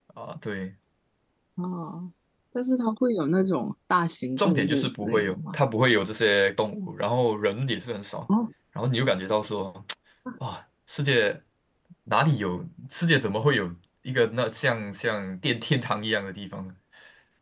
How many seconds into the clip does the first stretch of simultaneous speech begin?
4.4 s

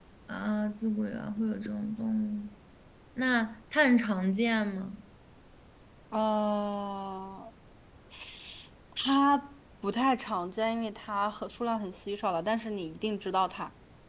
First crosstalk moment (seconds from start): none

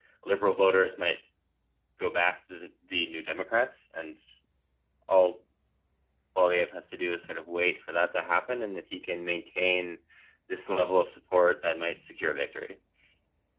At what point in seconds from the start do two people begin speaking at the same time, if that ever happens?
none

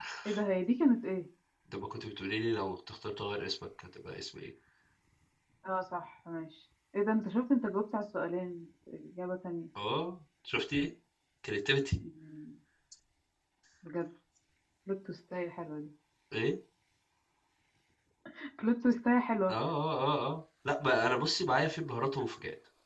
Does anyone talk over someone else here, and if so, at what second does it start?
none

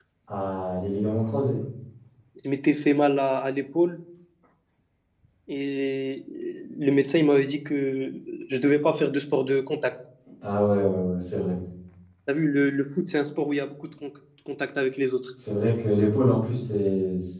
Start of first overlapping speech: none

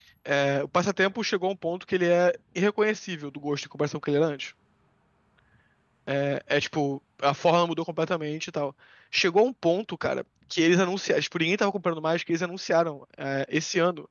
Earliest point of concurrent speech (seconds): none

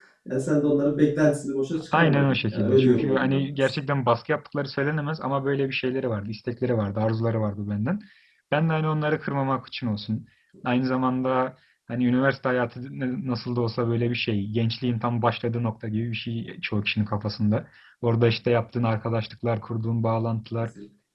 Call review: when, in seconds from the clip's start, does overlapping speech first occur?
1.9 s

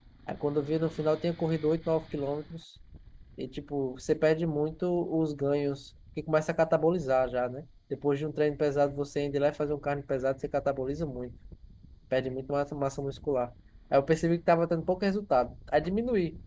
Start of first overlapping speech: none

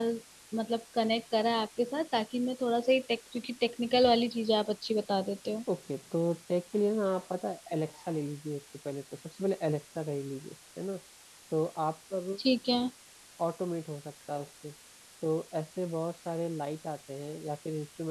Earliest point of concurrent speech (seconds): none

